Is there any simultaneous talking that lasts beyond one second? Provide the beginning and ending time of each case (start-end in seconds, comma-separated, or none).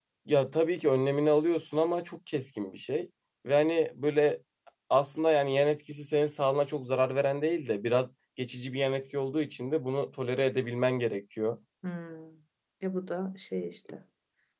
none